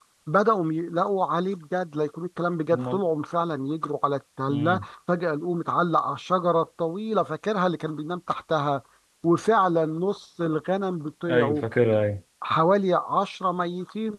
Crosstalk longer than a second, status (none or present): none